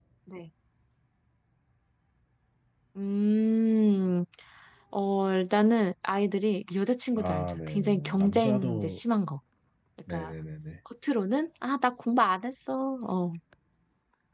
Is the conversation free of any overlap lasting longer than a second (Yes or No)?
No